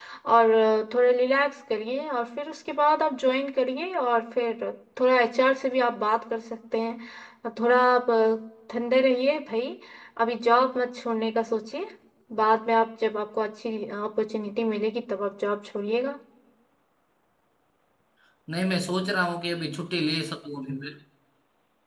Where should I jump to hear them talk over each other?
none

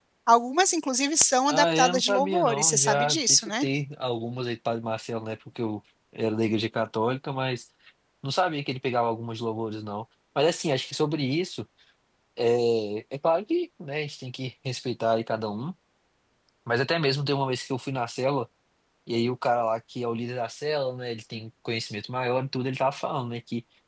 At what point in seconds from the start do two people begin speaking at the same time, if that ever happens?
1.5 s

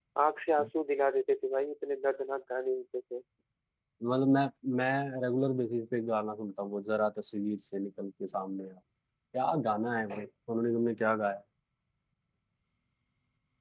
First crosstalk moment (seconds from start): none

